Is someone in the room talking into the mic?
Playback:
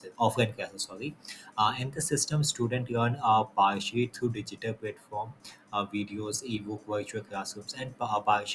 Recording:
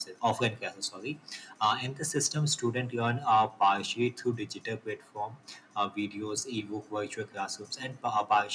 No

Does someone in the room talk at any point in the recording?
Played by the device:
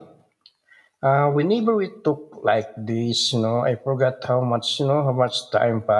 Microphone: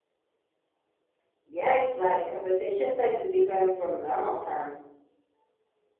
Yes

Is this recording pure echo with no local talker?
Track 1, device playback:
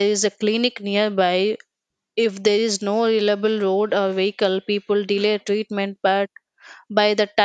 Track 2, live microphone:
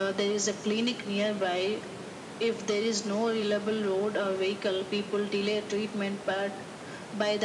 Yes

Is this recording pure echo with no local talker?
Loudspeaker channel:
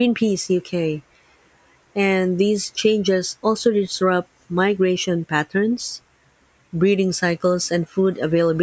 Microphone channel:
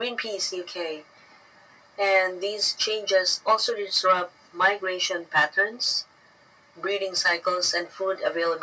Yes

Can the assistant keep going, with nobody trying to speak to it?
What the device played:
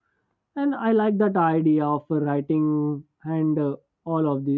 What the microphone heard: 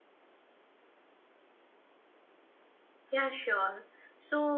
No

